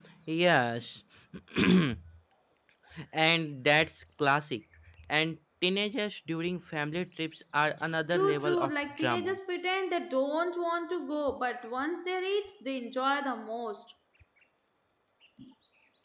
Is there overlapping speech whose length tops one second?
Yes, from 8.1 s

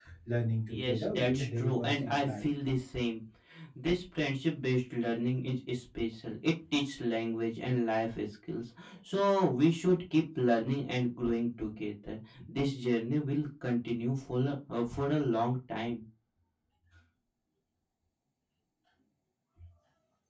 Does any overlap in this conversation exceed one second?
Yes, from 0.7 s

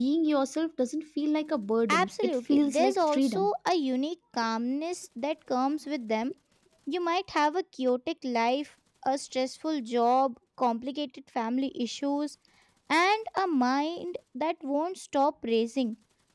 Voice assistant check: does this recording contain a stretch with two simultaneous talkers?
Yes, from 1.9 s

